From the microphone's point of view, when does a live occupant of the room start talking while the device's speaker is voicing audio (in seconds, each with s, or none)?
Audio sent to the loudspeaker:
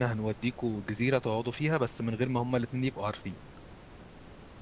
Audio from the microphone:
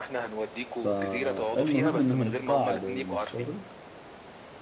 0.7 s